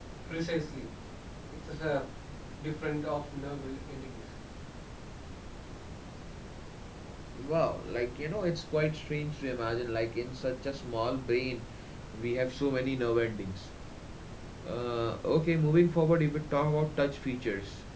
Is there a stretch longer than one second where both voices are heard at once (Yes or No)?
No